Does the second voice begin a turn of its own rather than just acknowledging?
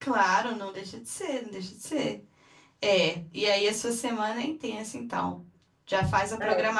No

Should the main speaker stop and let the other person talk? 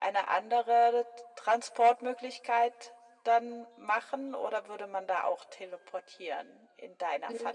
Yes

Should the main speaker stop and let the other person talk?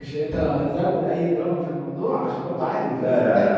Yes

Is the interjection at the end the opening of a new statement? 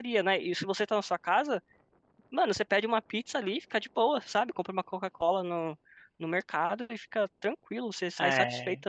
Yes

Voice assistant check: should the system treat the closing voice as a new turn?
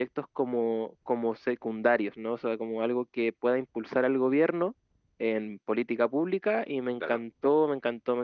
No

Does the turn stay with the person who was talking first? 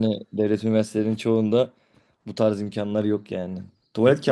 No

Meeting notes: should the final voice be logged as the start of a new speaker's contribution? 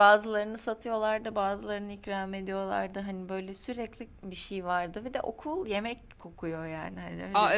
Yes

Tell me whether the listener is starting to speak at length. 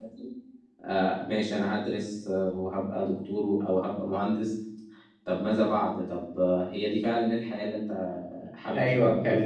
Yes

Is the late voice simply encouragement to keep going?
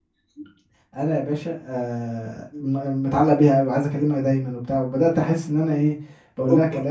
Yes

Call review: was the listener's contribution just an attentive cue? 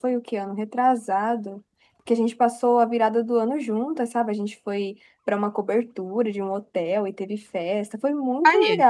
Yes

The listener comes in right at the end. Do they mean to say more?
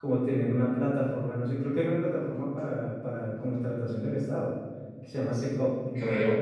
No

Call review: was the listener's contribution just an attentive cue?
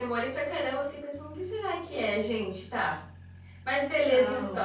No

